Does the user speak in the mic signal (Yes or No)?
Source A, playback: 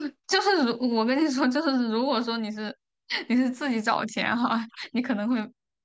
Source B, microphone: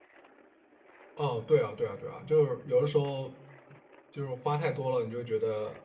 Yes